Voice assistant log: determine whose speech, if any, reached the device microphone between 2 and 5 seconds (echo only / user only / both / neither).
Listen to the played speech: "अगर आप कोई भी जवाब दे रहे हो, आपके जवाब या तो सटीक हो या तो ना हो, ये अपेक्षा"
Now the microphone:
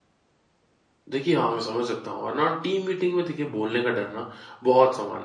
user only